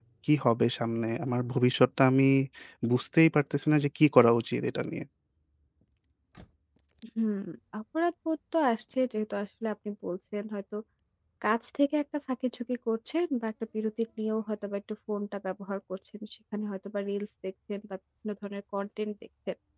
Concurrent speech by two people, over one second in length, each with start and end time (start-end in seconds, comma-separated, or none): none